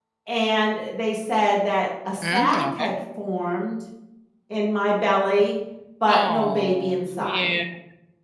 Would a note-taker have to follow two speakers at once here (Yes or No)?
Yes